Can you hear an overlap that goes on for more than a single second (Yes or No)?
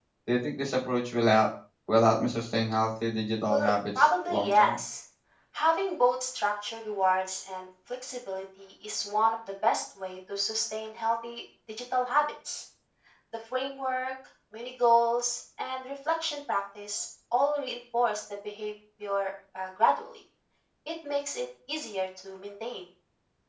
Yes